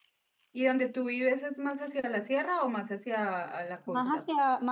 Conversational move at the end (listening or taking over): taking over